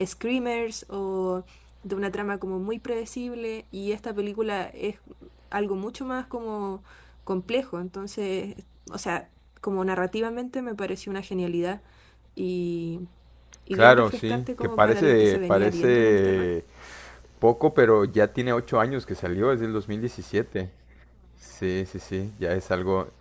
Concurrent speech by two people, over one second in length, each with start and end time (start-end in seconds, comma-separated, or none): 13.7-16.5